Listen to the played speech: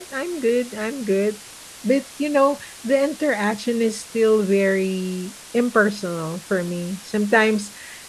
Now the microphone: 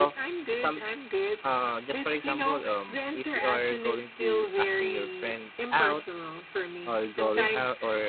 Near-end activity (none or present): present